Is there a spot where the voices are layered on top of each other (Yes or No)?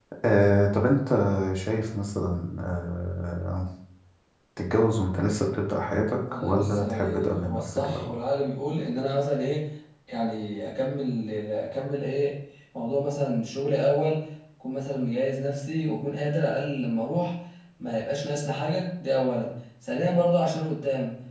Yes